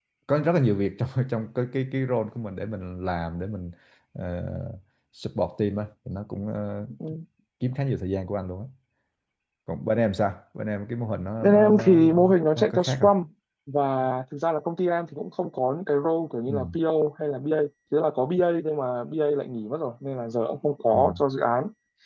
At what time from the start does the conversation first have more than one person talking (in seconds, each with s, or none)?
11.4 s